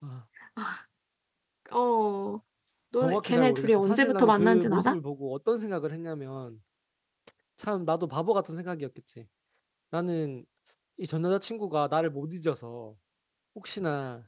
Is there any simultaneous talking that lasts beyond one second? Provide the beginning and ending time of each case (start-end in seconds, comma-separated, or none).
3.0-4.9